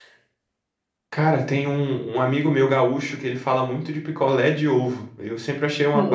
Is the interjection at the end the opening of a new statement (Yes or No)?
Yes